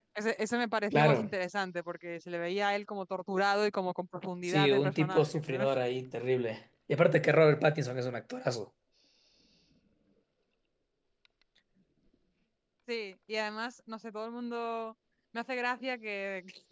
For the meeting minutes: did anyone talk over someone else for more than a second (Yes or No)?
Yes